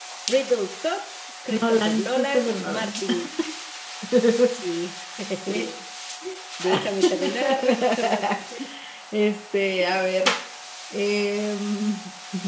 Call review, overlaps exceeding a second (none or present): present